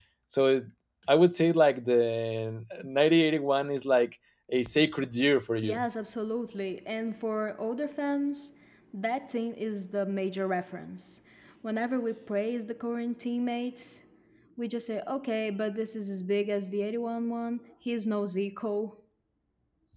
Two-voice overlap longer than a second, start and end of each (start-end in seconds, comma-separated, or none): none